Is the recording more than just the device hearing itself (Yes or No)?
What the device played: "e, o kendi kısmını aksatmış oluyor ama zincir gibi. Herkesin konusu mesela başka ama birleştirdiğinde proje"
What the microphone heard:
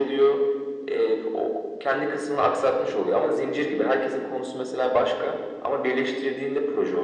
No